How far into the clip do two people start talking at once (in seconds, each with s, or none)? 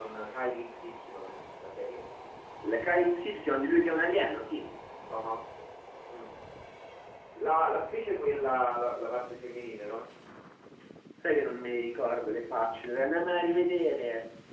none